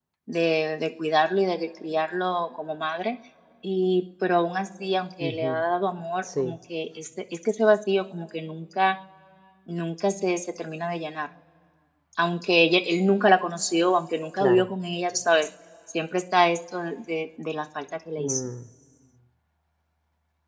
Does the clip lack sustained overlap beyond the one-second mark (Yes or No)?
Yes